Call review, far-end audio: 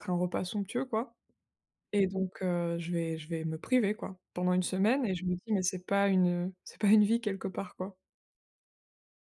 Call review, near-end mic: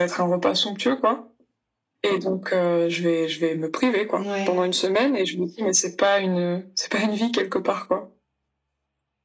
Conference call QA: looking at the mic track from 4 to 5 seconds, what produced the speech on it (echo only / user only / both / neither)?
both